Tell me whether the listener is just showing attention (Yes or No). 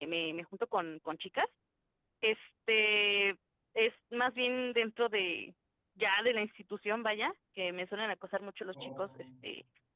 Yes